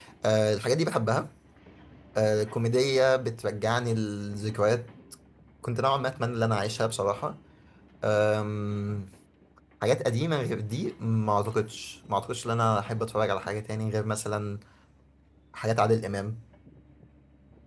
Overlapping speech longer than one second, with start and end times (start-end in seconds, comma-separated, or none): none